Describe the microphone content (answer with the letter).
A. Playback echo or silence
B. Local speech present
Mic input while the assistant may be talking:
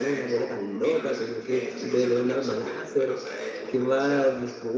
B